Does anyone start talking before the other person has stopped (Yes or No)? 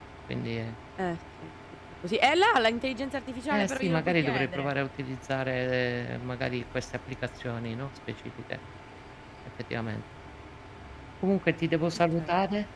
Yes